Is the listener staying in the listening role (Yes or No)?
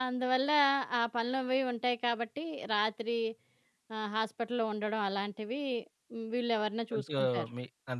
No